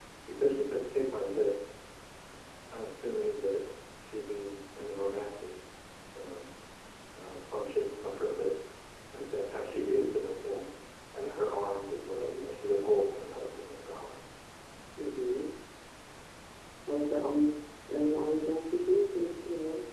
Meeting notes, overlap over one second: none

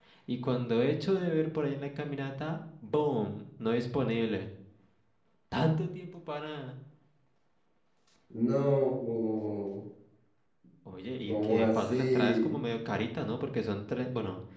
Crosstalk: present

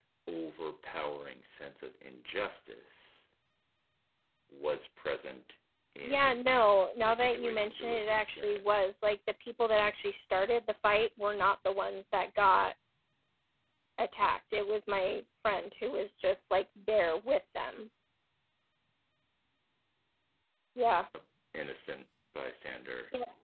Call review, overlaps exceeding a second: present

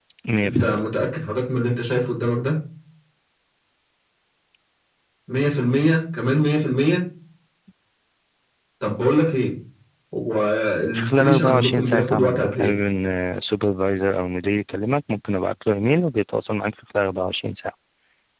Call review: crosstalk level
present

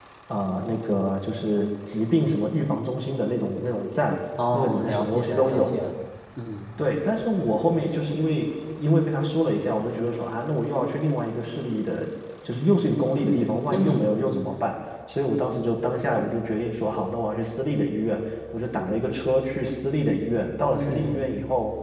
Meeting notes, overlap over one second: present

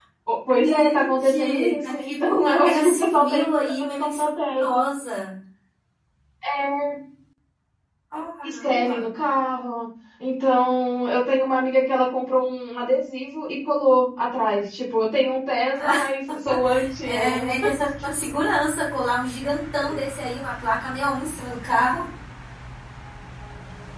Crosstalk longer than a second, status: present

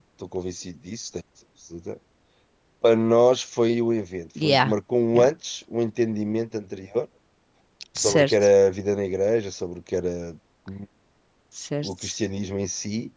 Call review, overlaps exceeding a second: none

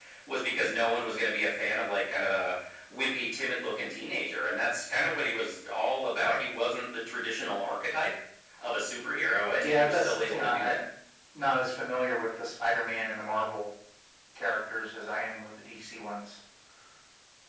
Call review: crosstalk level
present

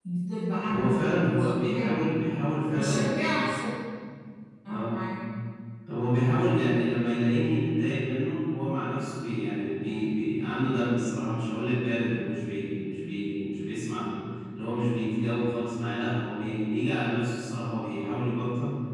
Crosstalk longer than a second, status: present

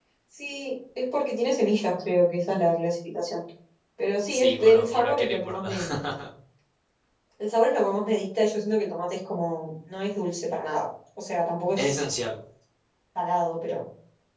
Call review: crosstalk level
present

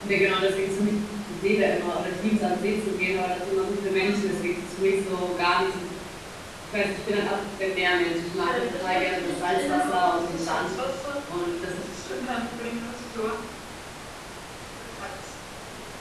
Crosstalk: present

